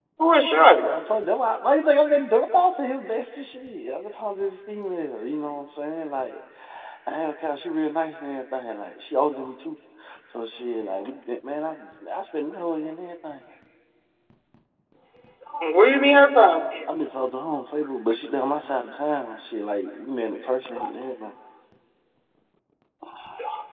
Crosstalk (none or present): none